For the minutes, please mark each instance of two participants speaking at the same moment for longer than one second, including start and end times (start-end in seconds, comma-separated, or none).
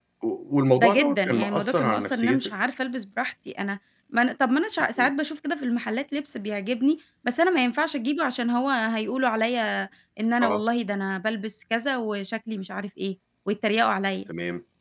0.8-2.5